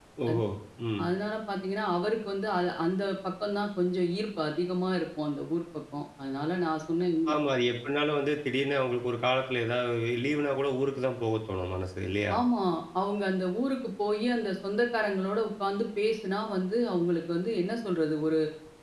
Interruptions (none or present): none